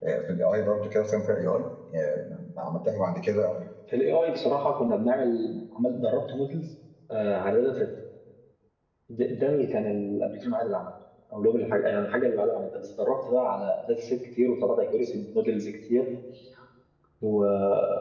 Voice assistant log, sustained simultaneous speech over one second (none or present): none